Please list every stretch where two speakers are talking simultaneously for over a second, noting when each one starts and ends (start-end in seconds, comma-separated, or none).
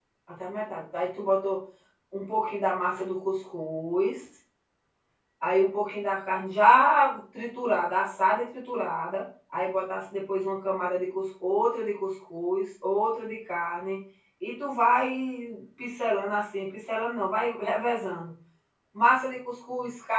none